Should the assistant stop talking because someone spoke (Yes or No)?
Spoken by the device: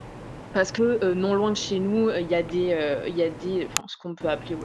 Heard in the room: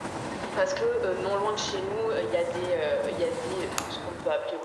No